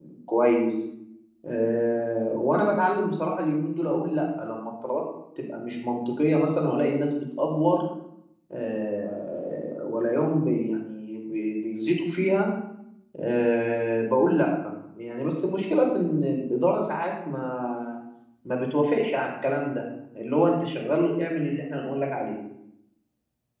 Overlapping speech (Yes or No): No